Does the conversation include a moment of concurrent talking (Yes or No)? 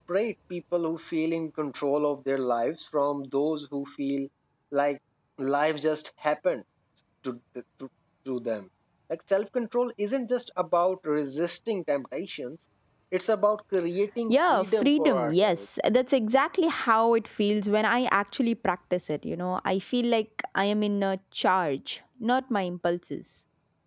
Yes